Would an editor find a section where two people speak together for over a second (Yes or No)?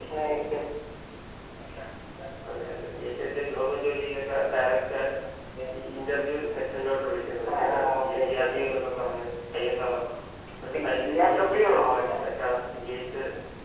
Yes